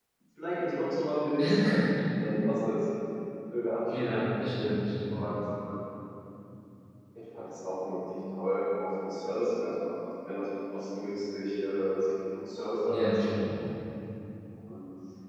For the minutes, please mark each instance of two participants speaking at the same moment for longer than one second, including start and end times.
none

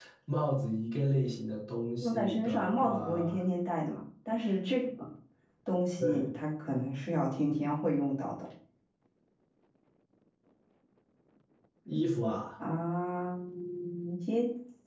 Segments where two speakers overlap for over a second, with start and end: 2.0-3.4

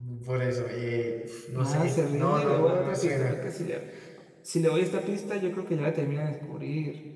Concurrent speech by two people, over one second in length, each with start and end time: 1.5-3.3

